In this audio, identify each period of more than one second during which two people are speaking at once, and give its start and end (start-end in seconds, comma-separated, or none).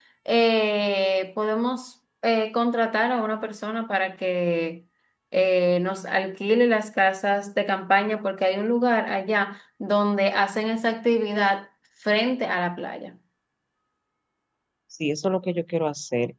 none